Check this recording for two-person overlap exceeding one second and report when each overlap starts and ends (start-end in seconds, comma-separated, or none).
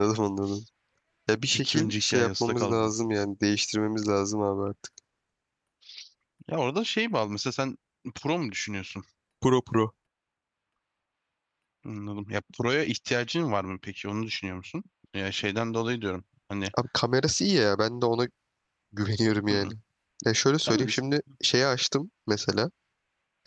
1.5-2.9